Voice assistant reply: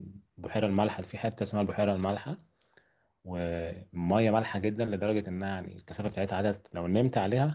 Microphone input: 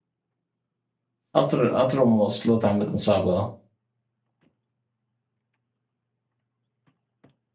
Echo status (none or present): none